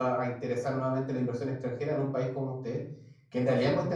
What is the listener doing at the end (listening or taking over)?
listening